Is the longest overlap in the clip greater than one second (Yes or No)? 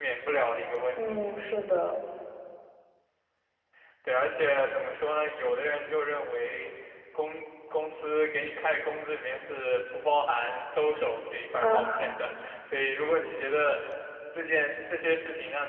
No